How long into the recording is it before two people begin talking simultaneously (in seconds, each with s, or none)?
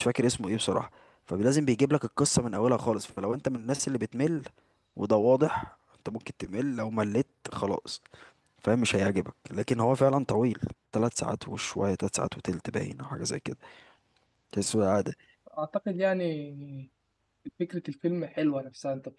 none